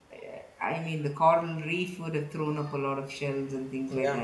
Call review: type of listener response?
listening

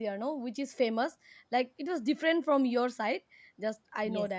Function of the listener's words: listening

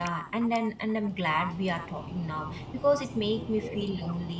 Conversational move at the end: listening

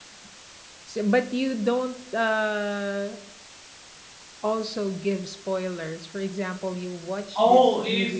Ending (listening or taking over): taking over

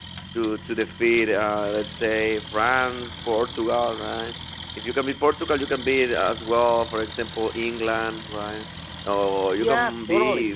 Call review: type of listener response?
listening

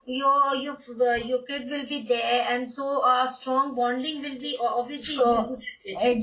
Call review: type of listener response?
taking over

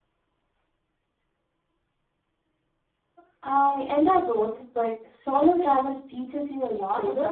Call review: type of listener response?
taking over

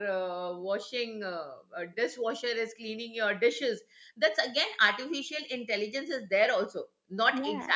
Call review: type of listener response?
listening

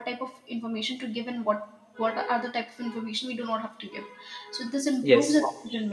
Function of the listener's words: listening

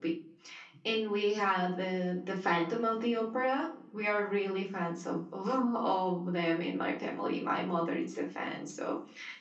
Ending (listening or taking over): listening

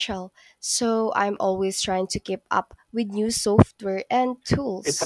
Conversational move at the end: taking over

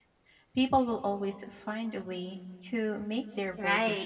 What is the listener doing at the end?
taking over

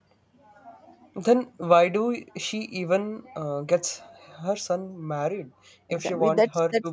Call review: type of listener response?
taking over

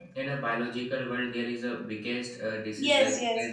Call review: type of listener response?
taking over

